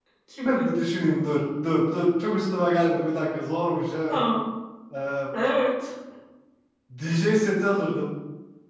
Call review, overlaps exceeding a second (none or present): none